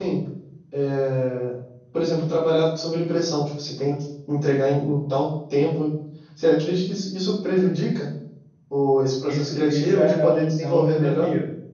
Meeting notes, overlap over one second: present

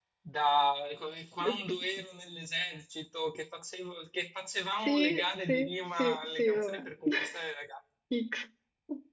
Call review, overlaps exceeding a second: present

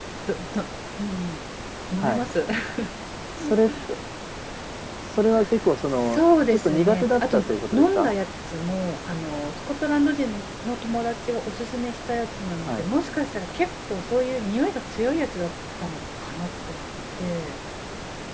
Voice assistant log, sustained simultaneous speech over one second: present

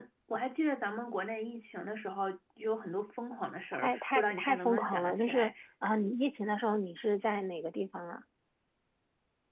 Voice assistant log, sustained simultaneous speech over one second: present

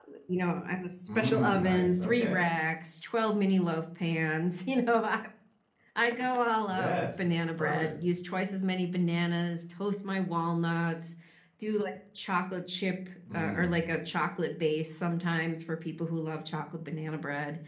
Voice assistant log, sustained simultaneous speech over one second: present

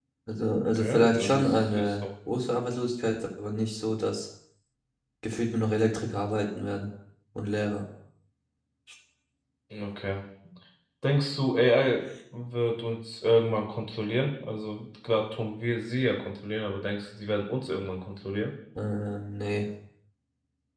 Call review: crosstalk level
present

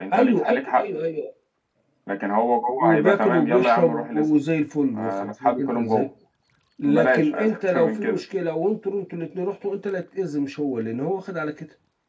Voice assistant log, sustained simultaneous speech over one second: present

